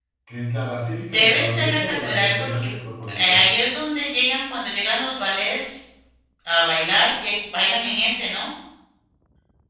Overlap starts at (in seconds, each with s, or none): 1.1 s